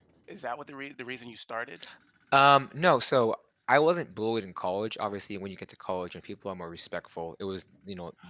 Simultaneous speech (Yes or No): No